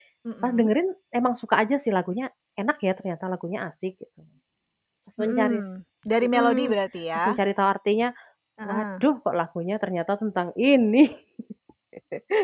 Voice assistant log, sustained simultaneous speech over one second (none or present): none